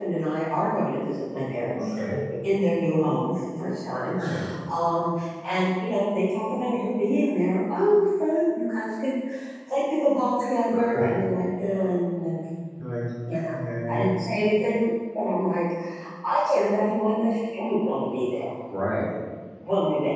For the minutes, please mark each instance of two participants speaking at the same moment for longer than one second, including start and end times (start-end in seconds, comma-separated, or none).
none